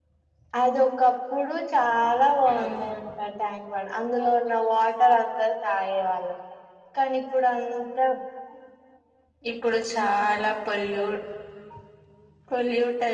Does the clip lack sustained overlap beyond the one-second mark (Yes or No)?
Yes